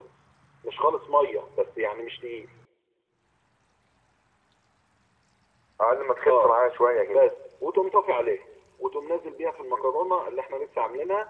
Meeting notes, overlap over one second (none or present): none